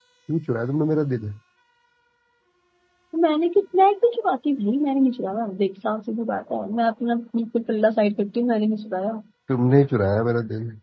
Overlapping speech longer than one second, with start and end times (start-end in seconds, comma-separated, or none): none